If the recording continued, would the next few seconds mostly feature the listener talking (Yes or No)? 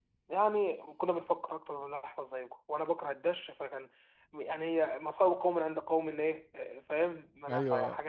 Yes